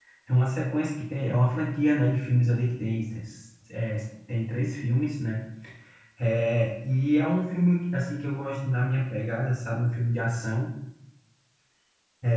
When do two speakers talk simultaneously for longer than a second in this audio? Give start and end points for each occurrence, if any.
none

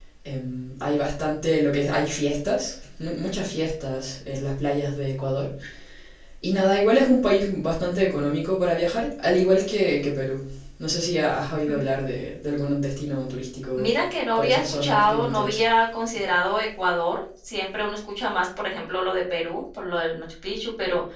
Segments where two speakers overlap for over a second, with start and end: 14.3-15.6

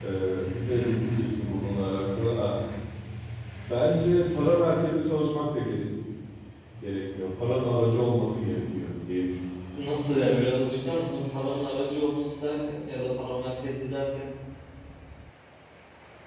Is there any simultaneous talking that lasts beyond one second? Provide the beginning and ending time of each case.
none

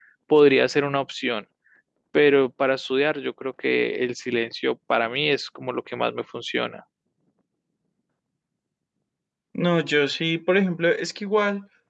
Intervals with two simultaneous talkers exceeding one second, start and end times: none

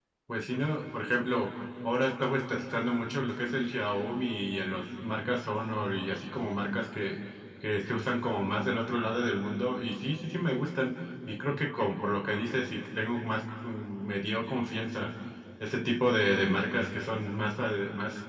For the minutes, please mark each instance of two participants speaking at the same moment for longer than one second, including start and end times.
none

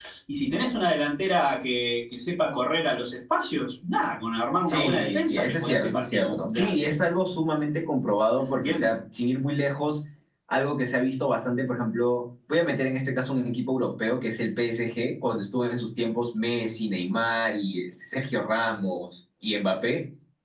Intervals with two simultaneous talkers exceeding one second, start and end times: 4.7-6.9

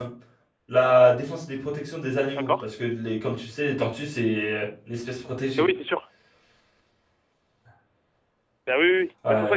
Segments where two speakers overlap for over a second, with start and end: none

